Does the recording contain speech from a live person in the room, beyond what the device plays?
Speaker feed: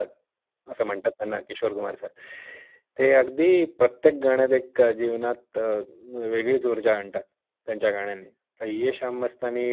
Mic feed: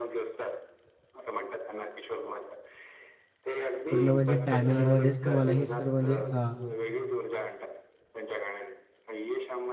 Yes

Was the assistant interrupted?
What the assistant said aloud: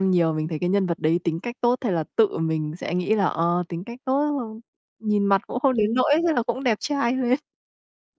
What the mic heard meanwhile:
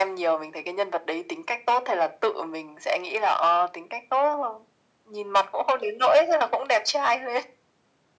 No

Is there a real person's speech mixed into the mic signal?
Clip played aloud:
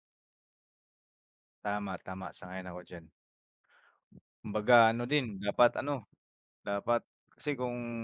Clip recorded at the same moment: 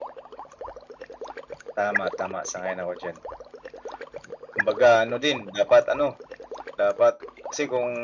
No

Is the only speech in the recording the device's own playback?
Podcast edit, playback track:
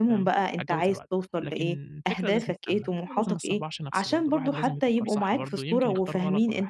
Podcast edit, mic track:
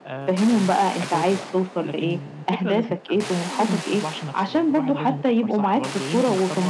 Yes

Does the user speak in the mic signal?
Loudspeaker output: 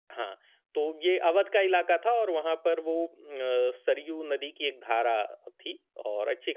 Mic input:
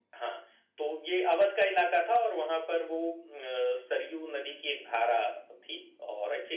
No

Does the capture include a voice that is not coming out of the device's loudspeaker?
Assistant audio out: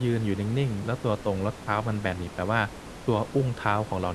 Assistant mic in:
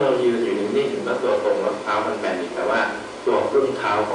No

